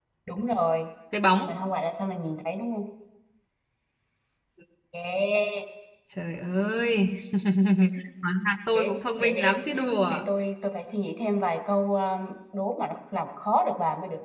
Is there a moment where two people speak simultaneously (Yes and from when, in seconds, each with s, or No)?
Yes, from 8.7 s